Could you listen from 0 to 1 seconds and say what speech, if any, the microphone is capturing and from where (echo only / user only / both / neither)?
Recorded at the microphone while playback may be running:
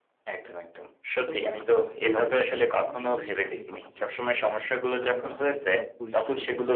echo only